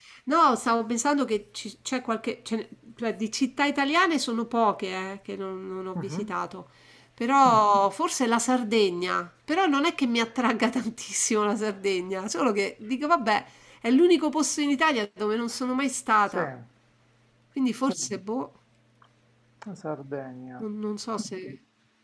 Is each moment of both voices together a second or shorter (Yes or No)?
Yes